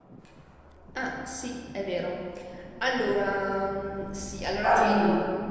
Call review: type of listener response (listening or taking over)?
listening